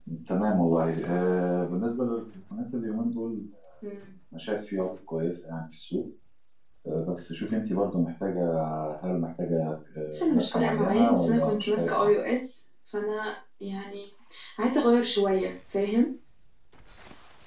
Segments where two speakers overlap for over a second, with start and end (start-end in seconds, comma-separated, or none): 10.1-12.1